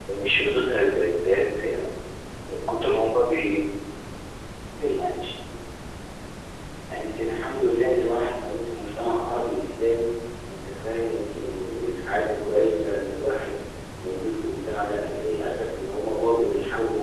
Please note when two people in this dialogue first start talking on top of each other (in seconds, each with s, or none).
none